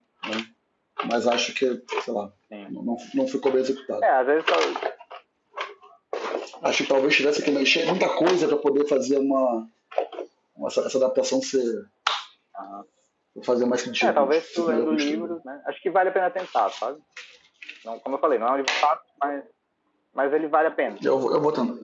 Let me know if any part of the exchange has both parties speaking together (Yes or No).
Yes